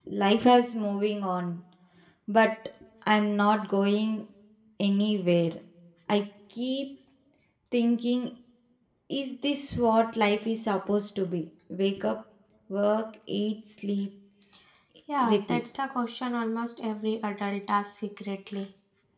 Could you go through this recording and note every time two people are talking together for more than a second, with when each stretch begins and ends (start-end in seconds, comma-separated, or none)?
none